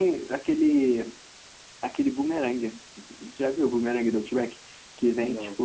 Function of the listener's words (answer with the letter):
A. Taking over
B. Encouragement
B